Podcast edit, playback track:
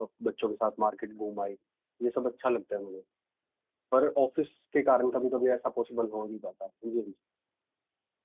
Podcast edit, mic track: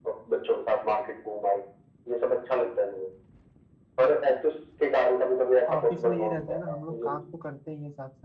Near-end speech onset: 5.7 s

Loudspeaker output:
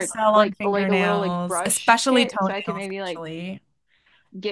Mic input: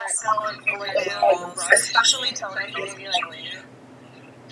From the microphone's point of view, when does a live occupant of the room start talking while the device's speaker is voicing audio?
none

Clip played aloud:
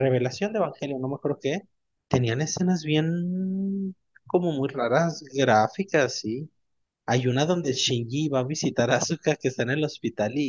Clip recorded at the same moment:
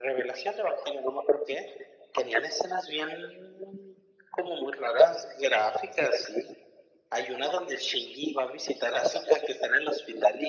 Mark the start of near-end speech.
none

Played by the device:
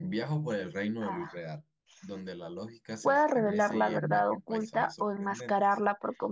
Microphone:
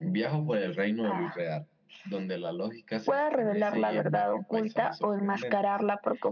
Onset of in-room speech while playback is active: none

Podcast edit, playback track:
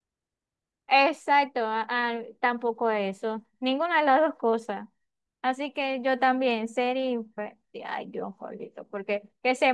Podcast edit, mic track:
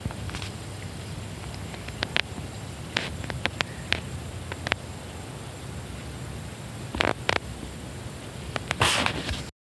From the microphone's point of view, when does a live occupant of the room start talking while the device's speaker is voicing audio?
none

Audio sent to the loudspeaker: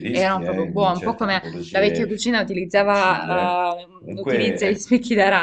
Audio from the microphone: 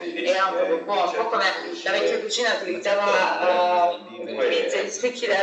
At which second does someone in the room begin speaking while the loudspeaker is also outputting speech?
2.6 s

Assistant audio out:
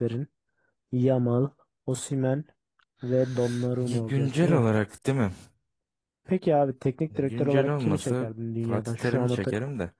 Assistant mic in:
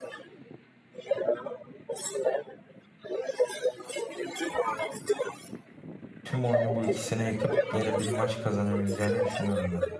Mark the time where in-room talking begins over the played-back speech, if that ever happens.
6.2 s

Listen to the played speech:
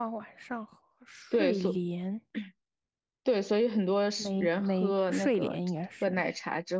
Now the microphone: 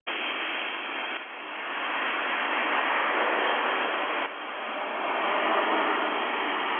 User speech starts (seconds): none

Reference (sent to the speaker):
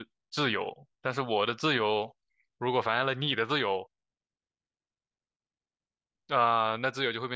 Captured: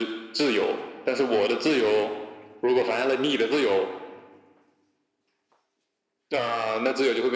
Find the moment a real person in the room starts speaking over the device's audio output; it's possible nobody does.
none

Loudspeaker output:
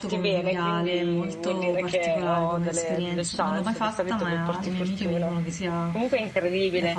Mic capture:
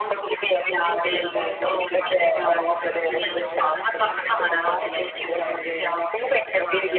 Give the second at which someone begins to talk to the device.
0.8 s

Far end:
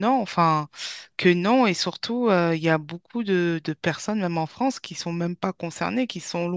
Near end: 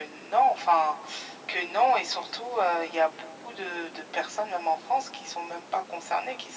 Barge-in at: none

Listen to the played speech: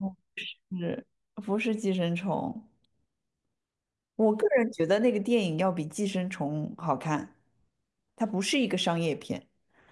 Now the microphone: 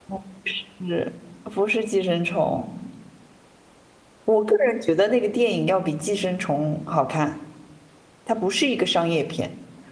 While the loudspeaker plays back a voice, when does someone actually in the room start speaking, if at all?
none

